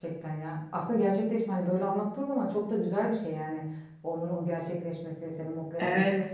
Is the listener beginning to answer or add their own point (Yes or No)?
Yes